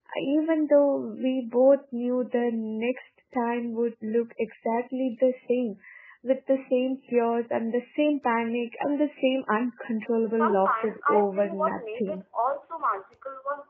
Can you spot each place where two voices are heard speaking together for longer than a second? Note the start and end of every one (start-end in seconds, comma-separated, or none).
10.3-12.2